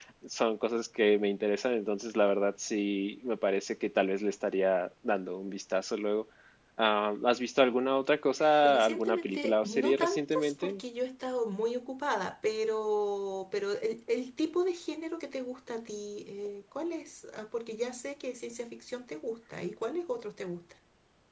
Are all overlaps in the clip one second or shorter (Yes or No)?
No